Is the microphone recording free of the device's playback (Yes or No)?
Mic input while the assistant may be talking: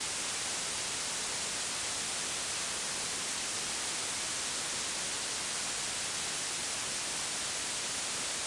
Yes